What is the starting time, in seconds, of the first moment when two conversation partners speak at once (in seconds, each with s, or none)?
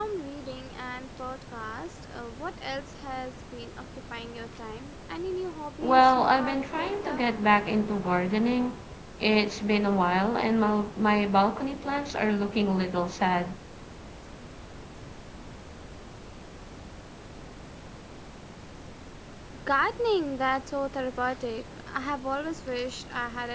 5.8 s